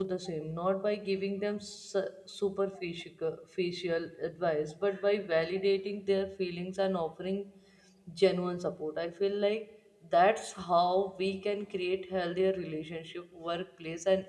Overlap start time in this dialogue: none

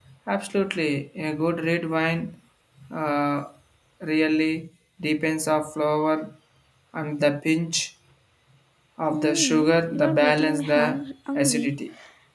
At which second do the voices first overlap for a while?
9 s

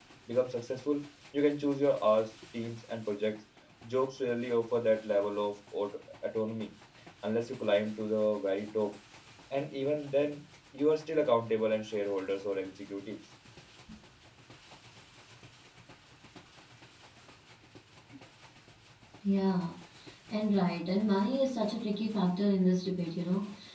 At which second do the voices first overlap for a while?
none

